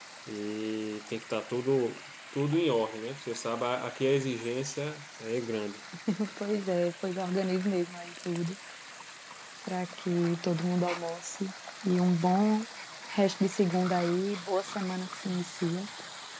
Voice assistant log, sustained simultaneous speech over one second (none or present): none